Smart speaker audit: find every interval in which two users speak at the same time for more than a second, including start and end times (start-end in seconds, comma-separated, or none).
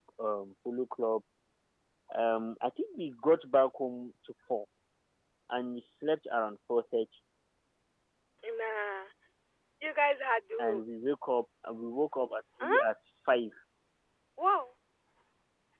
none